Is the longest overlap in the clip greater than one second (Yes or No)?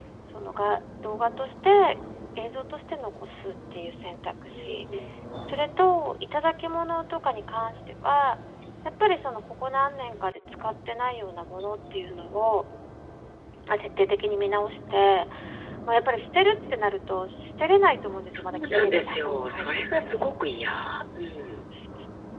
Yes